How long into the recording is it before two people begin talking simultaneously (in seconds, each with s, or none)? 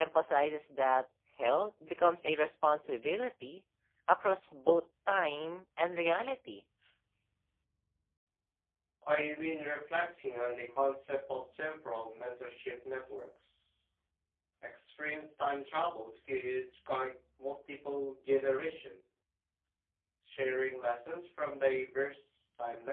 none